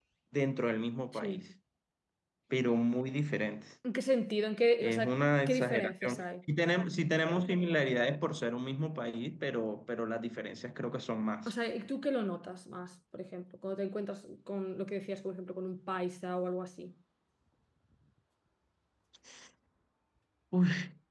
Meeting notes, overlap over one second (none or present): present